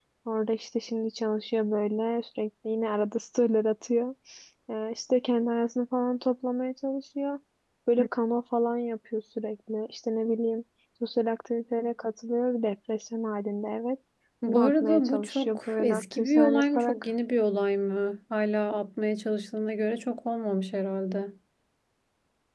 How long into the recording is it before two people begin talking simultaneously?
14.5 s

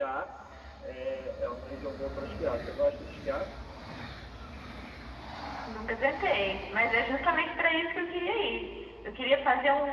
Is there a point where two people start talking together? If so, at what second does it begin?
none

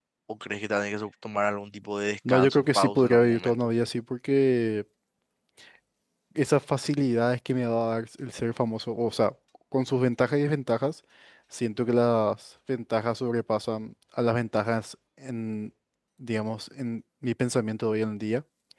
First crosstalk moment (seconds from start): 2.2 s

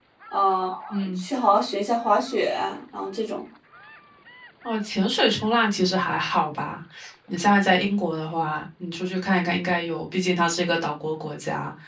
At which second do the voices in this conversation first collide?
none

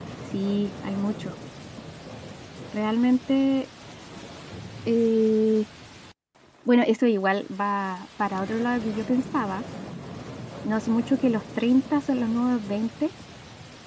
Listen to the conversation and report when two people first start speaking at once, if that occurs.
none

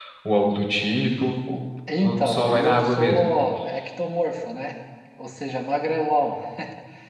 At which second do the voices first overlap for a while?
1.9 s

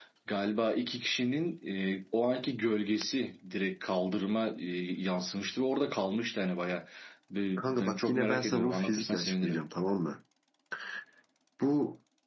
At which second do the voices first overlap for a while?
7.6 s

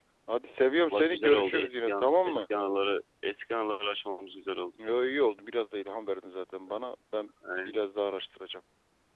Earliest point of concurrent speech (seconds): 0.9 s

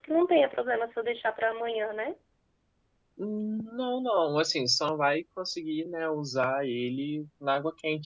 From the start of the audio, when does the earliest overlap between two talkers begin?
none

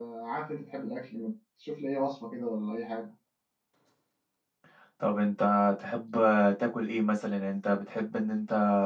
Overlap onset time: none

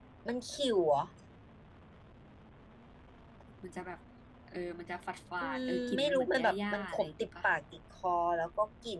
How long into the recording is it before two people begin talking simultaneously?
5.4 s

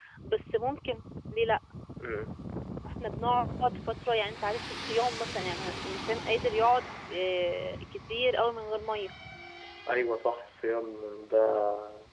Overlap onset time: none

